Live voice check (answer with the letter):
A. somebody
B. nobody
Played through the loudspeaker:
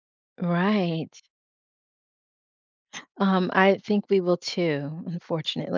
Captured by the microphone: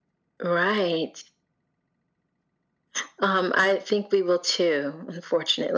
B